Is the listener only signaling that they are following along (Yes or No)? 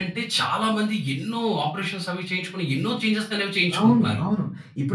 No